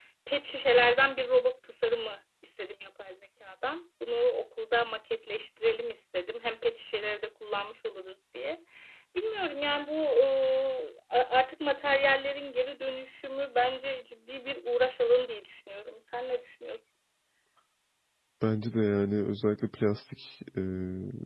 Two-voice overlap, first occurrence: none

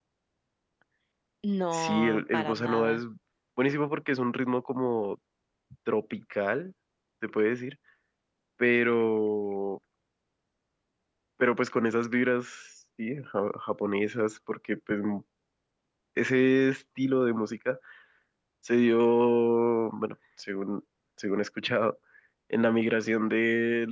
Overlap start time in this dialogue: 1.7 s

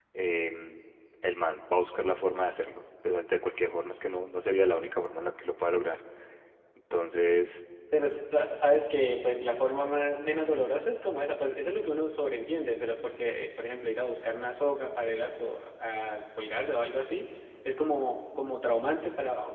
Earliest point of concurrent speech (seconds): none

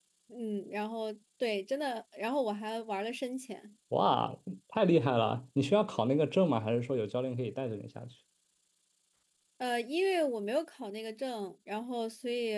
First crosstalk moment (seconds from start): none

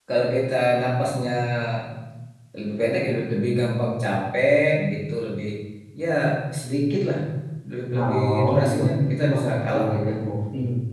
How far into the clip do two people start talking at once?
8.0 s

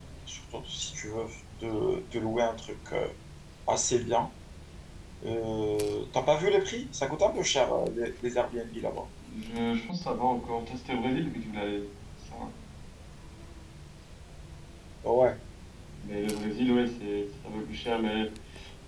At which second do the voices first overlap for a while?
none

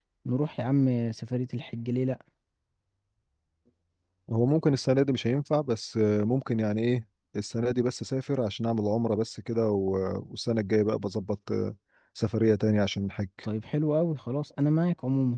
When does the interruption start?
none

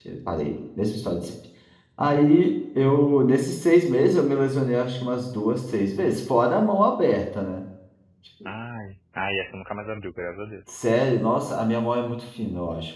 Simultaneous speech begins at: none

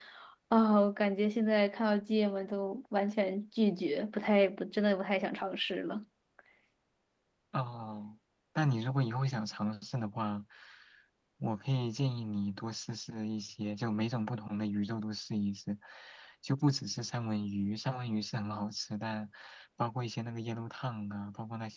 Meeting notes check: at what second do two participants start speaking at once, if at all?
none

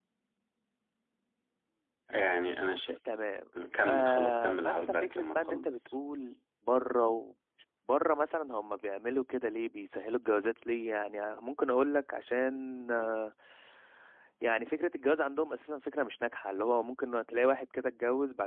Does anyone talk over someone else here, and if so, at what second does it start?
3.9 s

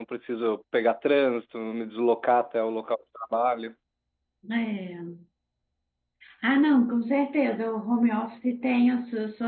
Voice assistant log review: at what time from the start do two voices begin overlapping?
none

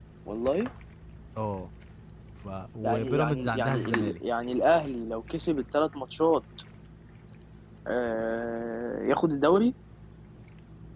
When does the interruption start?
2.8 s

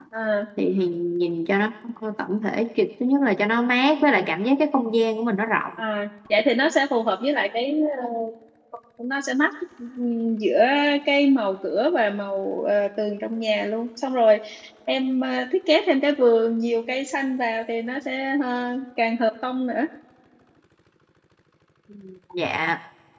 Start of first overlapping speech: none

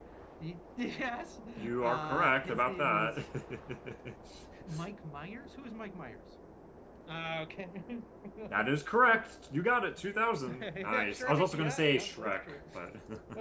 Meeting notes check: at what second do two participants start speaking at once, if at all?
1.8 s

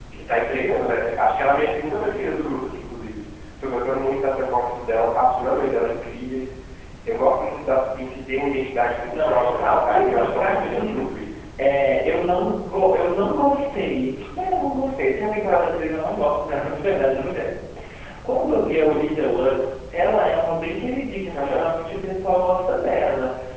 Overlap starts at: 9.1 s

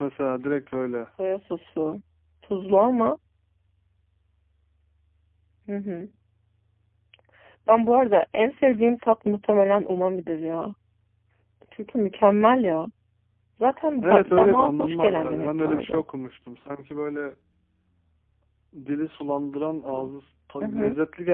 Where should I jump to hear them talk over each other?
14.0 s

